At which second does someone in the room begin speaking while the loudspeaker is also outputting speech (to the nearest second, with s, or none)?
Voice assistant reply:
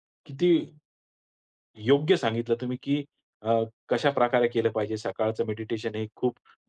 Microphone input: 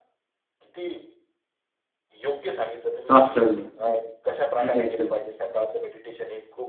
3 s